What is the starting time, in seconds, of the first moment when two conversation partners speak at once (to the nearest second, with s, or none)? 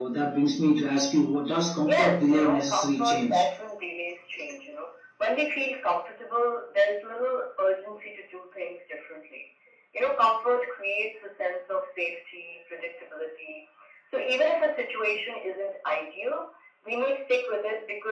2 s